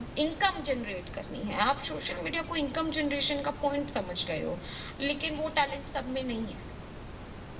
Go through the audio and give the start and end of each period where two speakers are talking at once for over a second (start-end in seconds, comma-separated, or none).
none